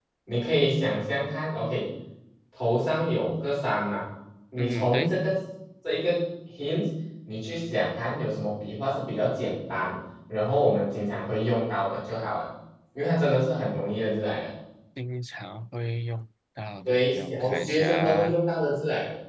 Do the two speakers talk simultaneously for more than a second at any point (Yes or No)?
Yes